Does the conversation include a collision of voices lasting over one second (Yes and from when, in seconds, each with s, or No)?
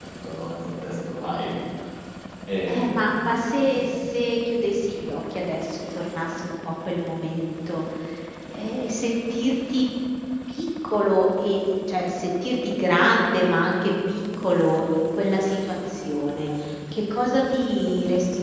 No